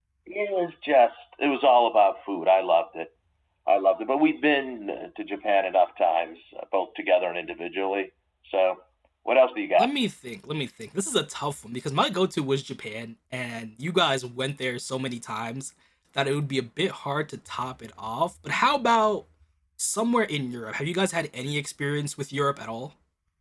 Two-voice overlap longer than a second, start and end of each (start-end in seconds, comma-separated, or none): none